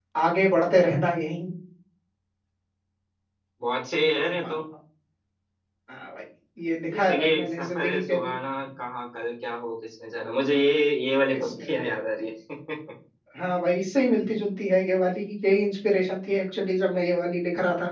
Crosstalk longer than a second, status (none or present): present